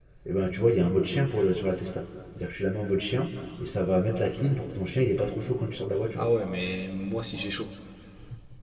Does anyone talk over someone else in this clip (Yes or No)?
No